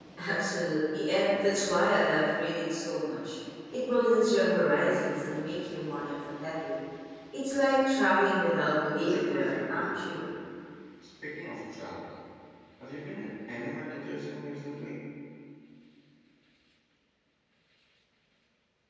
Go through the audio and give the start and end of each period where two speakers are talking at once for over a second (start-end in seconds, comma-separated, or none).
9.0-10.2